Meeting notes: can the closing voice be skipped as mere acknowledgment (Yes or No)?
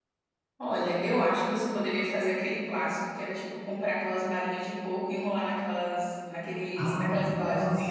No